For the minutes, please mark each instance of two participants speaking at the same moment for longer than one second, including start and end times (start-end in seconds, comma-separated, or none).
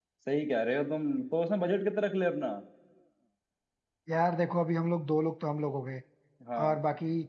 none